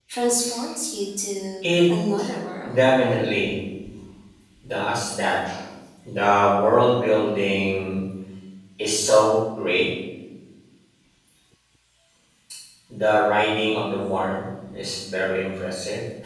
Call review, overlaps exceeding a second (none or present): none